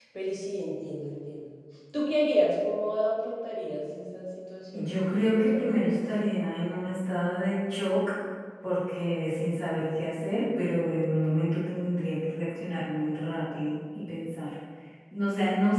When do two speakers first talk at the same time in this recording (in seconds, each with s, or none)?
4.7 s